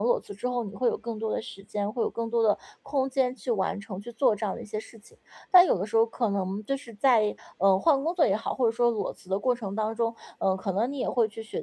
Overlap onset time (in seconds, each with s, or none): none